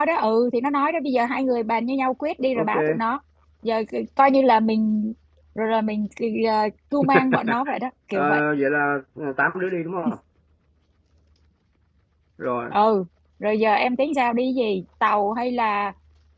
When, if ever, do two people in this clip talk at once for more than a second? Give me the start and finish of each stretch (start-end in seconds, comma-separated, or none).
none